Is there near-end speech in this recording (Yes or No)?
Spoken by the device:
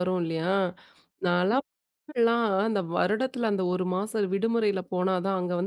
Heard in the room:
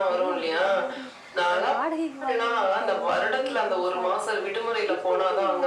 Yes